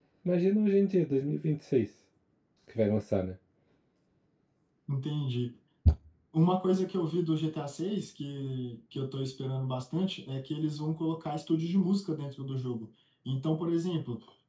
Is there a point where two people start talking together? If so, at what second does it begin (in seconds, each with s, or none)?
none